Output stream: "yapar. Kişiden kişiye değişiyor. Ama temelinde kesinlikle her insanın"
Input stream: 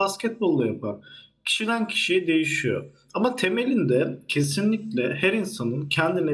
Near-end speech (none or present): none